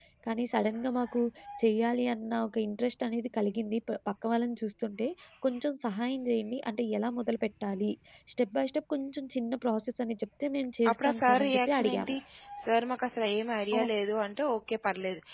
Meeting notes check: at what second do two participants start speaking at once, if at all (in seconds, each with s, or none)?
10.8 s